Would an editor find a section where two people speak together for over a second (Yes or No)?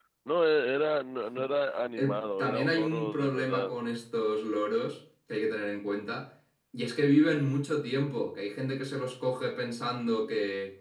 Yes